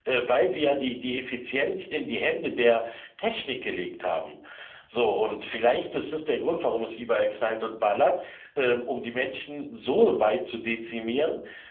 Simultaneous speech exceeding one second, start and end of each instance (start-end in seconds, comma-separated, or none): none